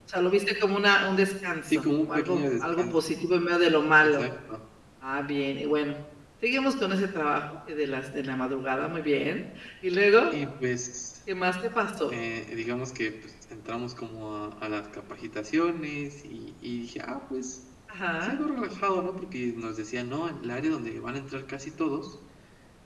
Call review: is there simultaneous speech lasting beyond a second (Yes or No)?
Yes